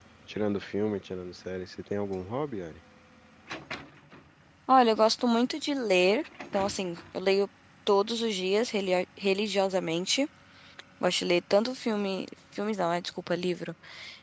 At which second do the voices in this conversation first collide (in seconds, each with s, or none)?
none